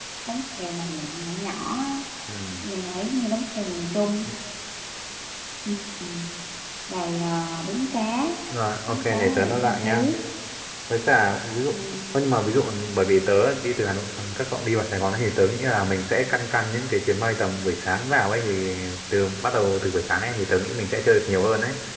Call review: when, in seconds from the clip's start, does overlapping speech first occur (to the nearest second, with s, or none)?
9 s